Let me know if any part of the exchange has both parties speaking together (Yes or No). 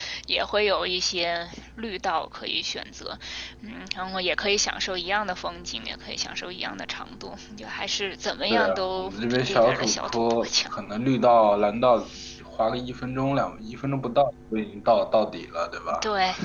Yes